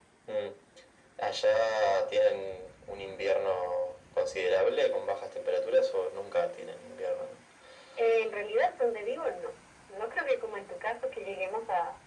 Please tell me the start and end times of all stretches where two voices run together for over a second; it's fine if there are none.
none

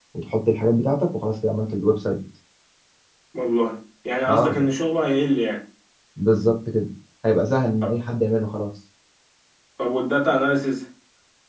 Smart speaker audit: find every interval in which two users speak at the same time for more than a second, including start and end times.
none

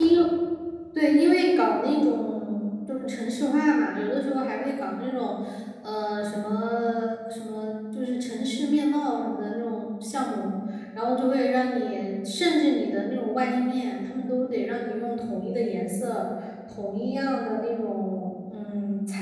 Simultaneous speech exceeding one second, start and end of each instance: none

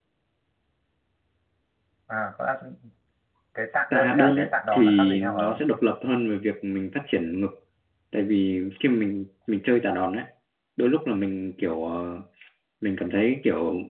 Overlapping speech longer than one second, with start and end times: 3.9-5.6

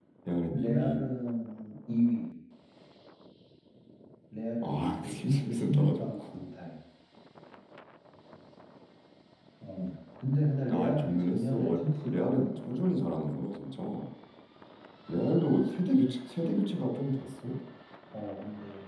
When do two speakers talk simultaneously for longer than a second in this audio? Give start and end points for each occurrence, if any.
4.6-6.2, 10.7-12.6

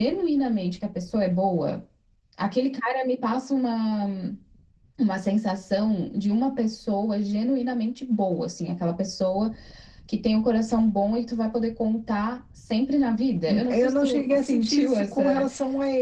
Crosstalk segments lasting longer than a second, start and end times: 13.5-15.5

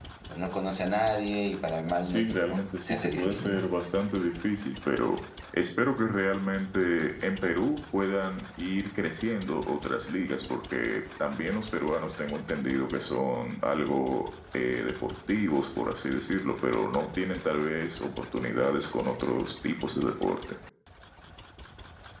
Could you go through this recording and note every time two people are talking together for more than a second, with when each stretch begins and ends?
2.0-3.7

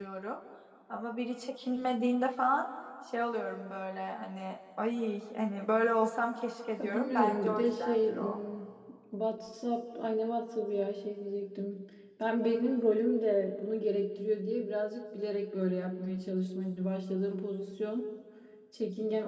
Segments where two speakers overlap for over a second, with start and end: 6.8-8.4

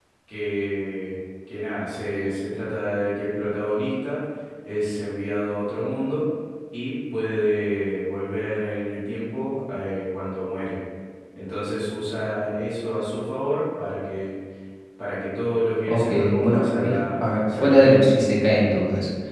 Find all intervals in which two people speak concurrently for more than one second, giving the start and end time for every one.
15.9-18.1

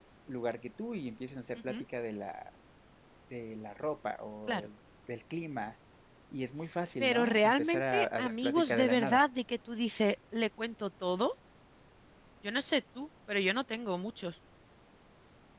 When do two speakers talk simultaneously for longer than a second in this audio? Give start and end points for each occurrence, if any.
7.0-9.2

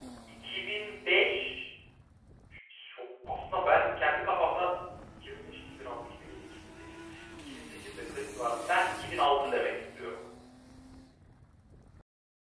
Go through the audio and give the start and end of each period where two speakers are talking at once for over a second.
none

